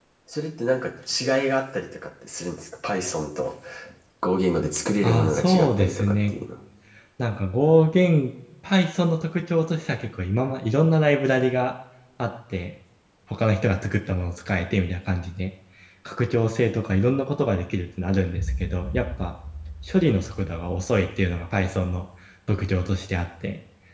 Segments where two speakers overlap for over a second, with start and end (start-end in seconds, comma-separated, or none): 5.0-6.3